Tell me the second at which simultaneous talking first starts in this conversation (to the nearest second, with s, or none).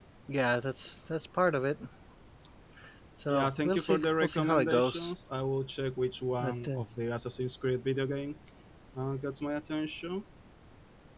3 s